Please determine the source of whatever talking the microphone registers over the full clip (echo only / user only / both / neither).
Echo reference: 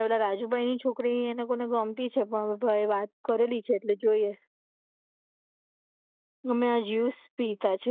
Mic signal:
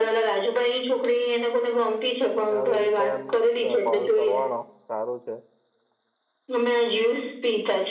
both